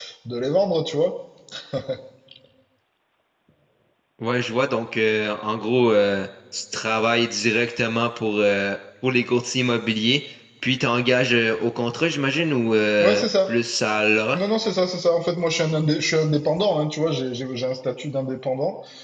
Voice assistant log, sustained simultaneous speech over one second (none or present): none